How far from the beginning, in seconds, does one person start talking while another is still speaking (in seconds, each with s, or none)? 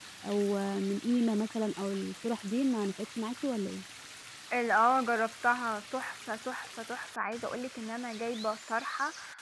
none